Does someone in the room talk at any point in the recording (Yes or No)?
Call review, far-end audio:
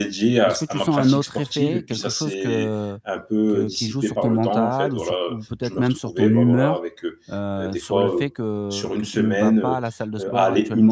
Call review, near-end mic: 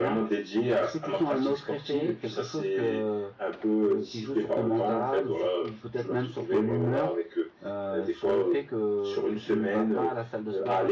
Yes